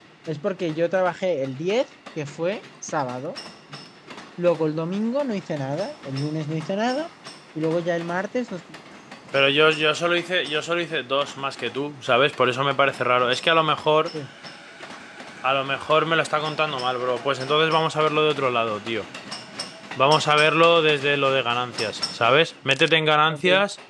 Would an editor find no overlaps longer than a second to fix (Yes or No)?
Yes